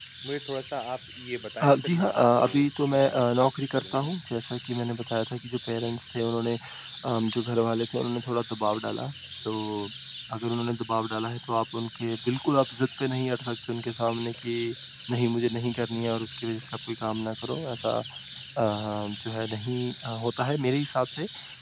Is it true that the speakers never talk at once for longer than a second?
No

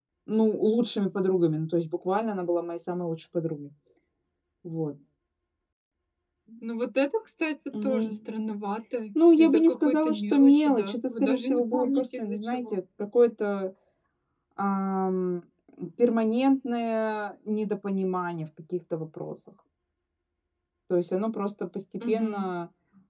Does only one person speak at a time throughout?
No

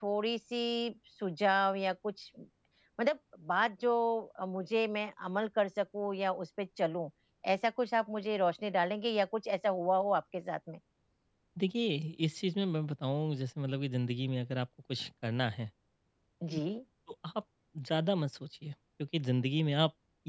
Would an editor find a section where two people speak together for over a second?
No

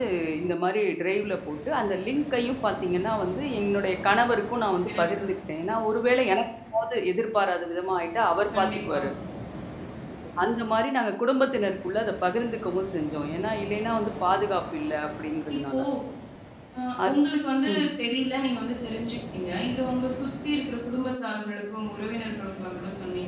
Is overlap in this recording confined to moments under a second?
Yes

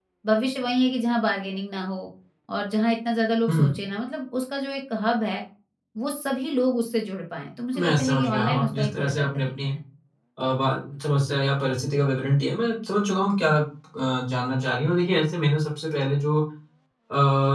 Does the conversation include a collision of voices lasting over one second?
Yes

